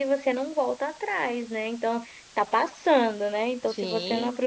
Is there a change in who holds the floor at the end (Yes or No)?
No